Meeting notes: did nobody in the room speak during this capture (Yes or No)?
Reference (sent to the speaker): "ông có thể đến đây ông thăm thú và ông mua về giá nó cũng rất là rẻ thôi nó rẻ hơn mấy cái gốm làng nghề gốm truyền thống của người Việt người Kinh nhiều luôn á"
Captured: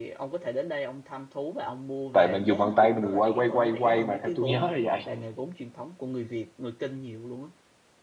No